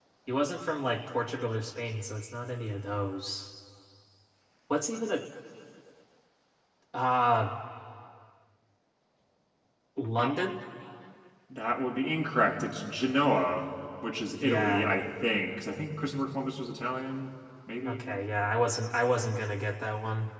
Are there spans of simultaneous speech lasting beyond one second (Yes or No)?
No